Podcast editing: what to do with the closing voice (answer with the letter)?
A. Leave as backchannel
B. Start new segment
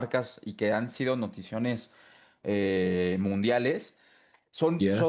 A